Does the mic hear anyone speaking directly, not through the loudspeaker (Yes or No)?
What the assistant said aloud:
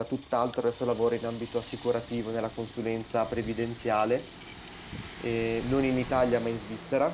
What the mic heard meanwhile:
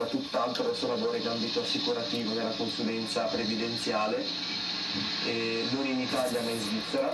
No